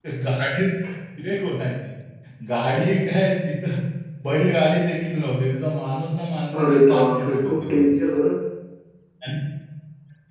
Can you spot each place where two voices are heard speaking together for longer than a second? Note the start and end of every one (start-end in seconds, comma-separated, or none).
6.6-7.9